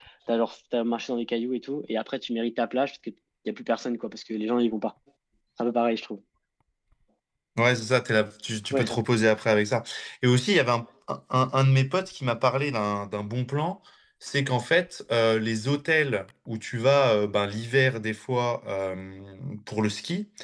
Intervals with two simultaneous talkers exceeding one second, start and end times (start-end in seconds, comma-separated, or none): none